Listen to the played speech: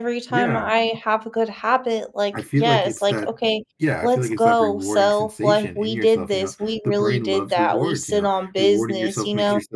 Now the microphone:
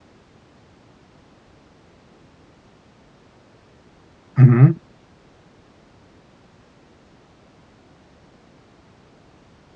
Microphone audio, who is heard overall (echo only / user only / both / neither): user only